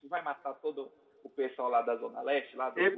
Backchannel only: No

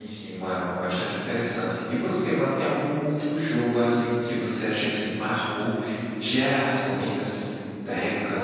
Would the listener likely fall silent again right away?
No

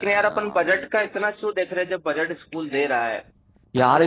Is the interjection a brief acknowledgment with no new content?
No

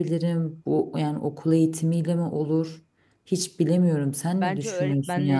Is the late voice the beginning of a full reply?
Yes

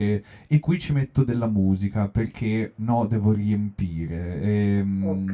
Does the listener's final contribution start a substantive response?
No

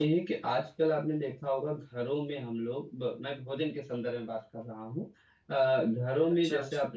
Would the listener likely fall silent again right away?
Yes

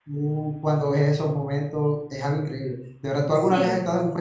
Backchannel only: Yes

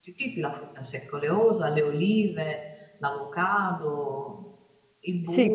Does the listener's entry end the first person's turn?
Yes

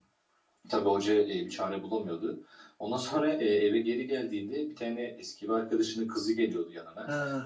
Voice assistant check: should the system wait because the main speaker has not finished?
No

